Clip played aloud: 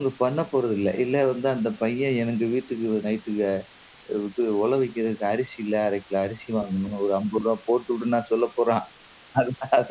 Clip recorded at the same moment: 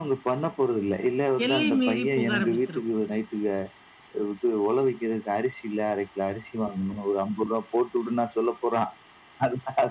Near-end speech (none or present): present